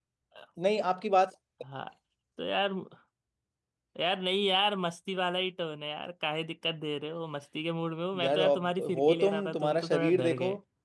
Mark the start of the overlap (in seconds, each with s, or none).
8.1 s